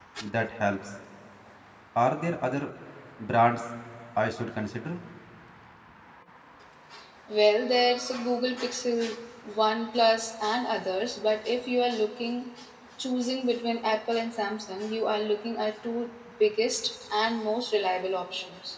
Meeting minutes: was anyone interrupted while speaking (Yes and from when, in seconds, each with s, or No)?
No